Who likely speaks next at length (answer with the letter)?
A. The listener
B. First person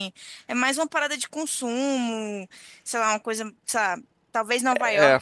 B